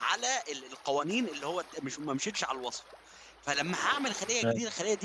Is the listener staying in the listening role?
Yes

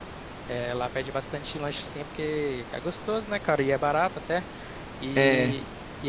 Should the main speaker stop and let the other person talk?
No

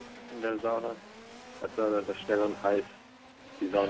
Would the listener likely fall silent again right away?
No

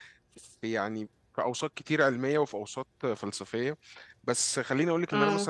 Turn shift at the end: No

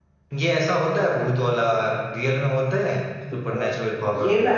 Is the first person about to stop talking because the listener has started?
Yes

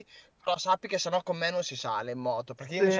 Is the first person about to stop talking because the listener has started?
No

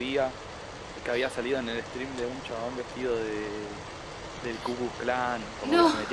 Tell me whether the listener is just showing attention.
Yes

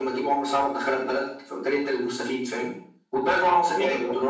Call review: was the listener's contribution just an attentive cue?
Yes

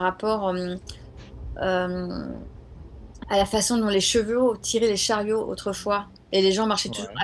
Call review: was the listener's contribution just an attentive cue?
Yes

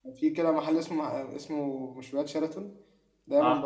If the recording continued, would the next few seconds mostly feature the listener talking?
No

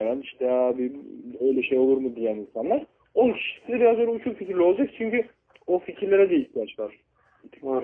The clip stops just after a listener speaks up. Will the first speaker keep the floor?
No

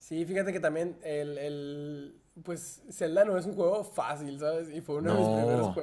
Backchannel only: Yes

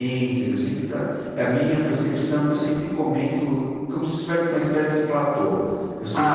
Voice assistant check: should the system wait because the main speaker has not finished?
Yes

